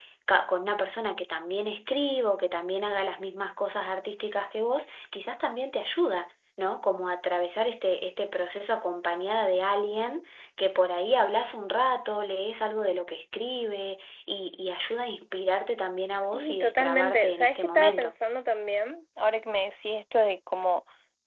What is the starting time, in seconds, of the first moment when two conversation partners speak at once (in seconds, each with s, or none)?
16.3 s